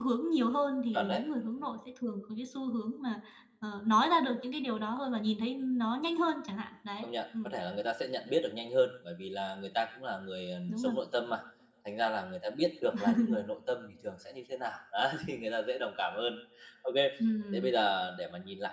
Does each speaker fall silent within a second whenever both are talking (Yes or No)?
Yes